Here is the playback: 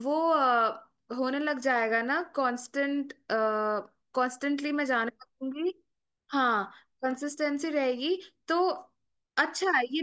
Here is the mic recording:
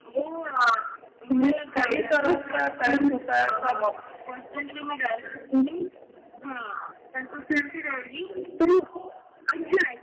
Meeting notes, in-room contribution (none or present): present